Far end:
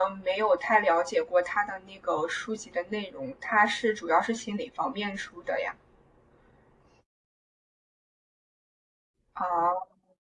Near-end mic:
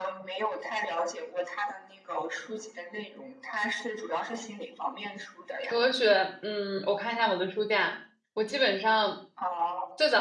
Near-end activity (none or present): present